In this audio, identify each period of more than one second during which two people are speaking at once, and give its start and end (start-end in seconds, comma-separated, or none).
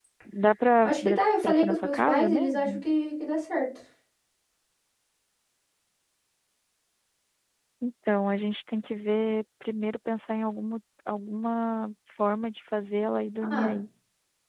0.8-2.8